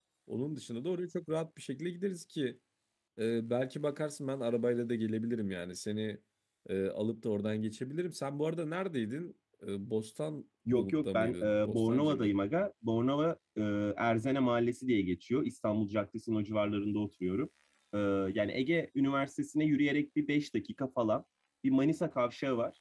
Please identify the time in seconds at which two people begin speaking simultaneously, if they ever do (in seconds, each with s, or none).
10.7 s